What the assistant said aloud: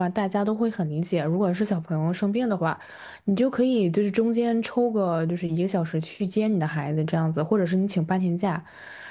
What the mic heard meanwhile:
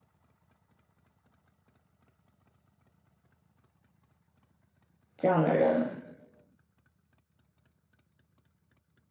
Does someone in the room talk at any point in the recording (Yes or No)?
Yes